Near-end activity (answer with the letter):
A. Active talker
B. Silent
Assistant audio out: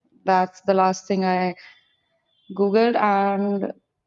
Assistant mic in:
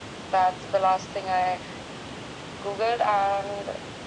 B